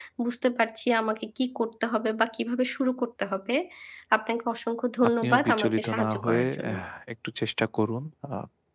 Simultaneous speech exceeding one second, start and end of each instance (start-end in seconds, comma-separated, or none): 5.1-6.7